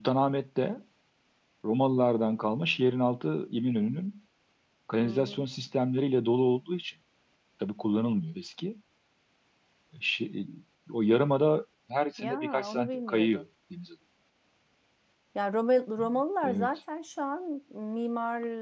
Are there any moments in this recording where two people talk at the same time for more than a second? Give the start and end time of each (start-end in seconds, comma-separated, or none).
12.2-13.4